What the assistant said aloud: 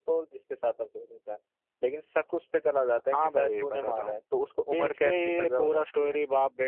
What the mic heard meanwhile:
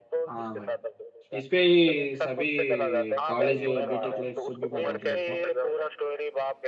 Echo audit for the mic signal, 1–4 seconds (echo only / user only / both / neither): both